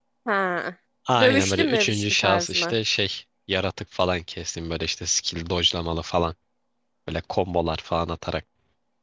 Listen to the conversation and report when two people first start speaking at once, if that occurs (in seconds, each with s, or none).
1.2 s